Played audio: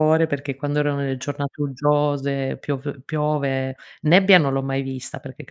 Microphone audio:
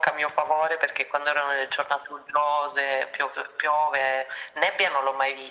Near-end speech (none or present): none